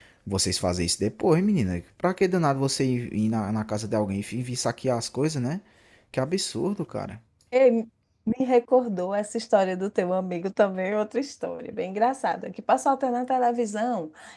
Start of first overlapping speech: none

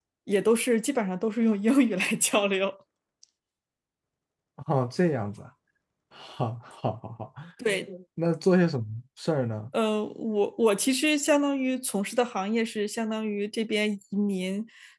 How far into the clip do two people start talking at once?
none

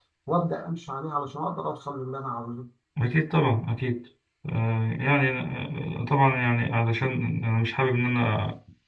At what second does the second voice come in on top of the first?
none

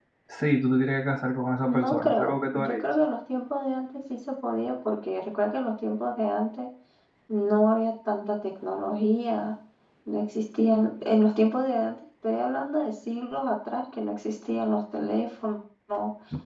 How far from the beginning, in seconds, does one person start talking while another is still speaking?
1.7 s

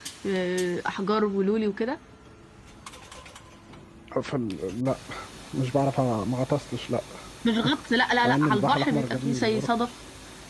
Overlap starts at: 8.2 s

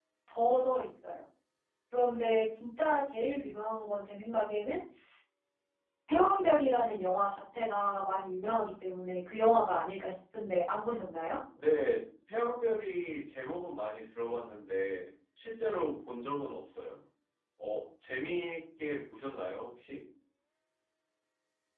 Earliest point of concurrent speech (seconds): none

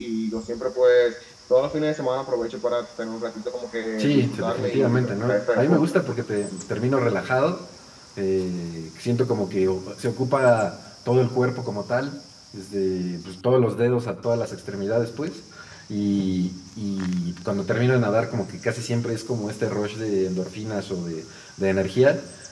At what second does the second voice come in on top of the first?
4.0 s

